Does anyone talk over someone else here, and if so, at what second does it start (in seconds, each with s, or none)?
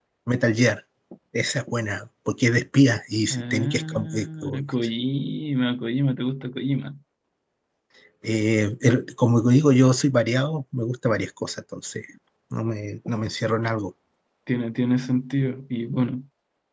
3.3 s